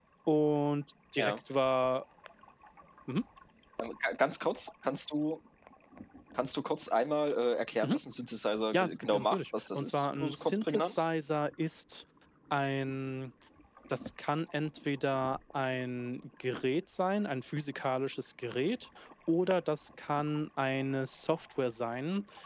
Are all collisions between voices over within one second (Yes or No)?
No